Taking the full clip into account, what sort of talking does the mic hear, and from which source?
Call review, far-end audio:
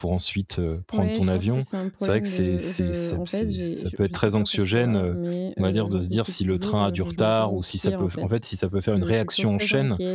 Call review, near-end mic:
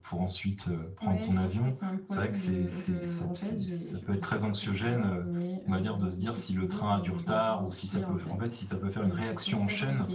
echo only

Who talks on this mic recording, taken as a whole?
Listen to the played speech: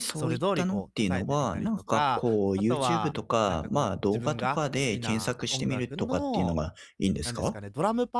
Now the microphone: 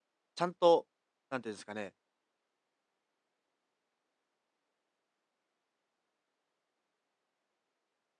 user only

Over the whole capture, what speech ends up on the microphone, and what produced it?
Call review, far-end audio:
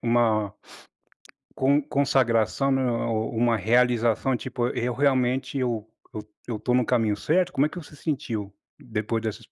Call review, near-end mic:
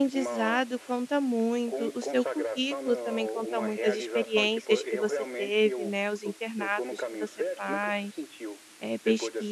both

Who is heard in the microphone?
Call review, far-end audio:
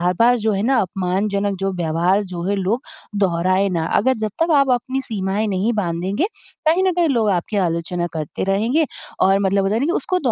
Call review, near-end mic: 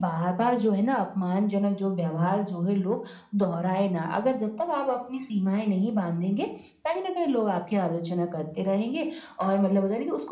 echo only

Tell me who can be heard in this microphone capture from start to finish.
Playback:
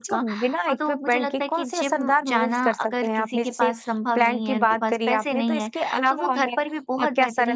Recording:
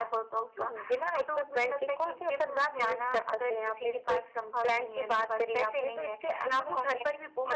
echo only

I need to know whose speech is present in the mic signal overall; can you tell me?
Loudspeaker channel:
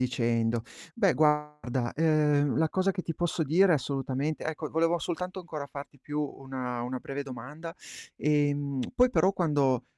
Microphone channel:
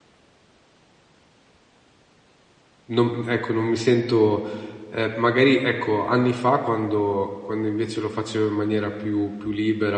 user only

